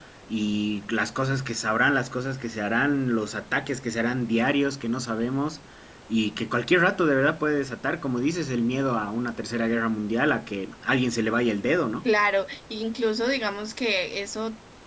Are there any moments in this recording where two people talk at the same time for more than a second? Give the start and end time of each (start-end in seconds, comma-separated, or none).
none